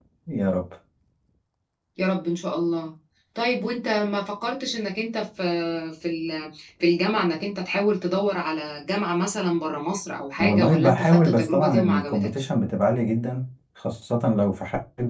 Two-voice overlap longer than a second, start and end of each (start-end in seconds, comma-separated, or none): 10.4-12.5